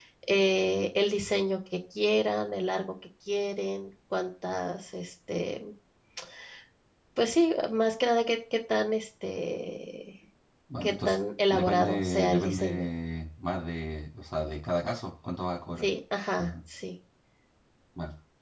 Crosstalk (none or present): present